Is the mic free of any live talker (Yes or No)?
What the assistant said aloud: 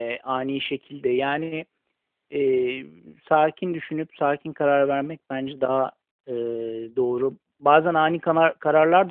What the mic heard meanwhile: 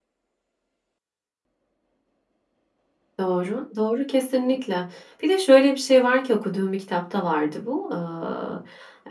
No